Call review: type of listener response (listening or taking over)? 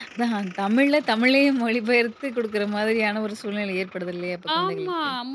taking over